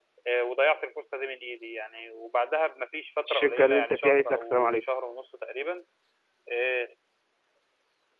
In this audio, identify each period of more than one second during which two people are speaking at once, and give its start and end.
3.3-4.8

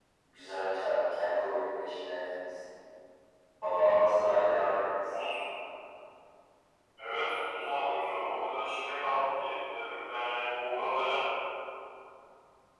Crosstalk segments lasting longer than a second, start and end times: none

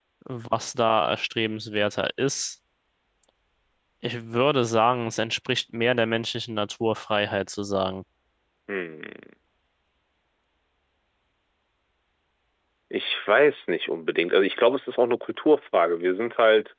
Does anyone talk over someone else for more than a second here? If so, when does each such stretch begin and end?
none

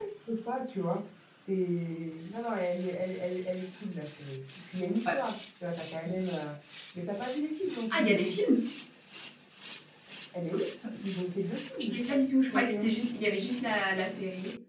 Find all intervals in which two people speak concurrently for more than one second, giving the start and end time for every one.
none

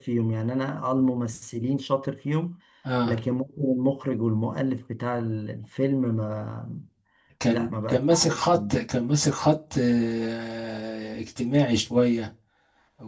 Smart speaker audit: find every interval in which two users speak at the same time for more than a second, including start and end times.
7.5-8.7

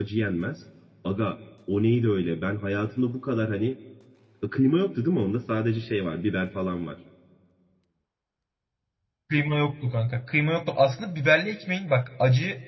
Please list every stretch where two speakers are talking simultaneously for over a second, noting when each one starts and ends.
none

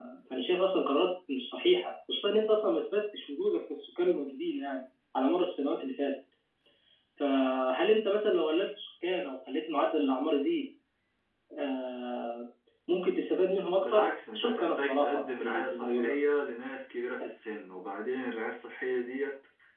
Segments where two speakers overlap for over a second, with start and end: 13.8-16.2

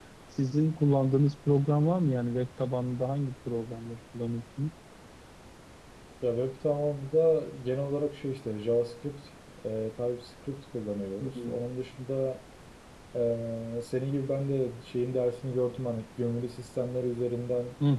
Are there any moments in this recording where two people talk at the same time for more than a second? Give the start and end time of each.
none

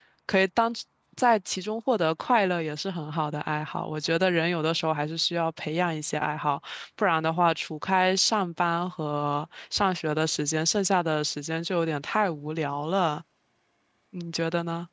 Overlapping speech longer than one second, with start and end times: none

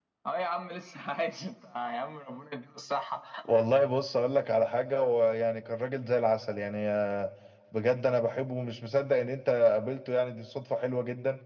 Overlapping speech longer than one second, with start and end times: none

